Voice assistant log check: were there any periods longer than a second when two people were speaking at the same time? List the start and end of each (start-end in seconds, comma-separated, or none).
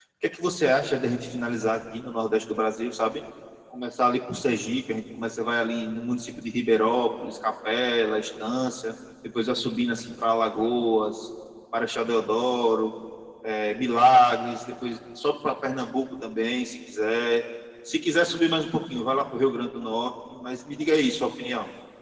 none